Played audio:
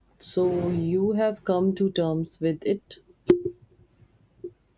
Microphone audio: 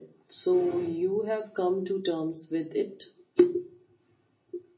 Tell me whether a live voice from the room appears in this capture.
No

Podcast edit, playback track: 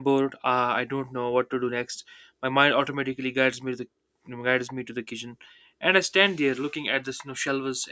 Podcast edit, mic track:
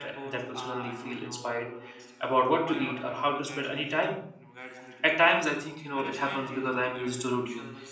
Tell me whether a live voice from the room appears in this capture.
Yes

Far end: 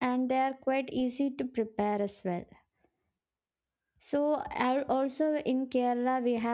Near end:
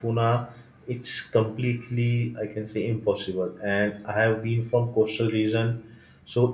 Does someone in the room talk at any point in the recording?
Yes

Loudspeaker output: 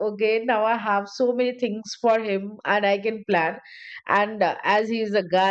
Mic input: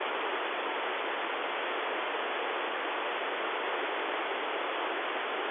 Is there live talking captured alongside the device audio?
No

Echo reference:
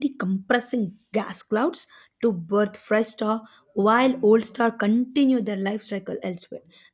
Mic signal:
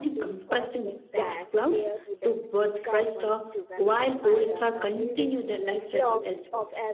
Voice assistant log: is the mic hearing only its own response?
No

